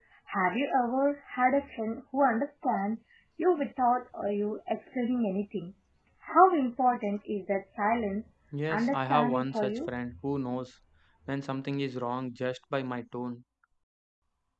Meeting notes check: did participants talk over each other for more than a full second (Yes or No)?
Yes